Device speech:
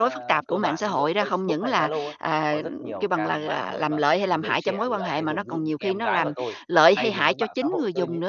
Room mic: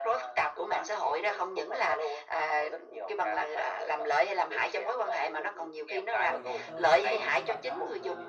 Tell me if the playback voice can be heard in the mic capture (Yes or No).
Yes